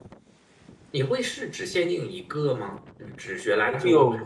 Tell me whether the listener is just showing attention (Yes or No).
No